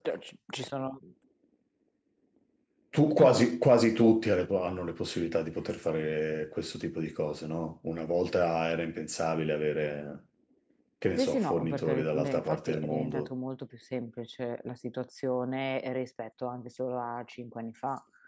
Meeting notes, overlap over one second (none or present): present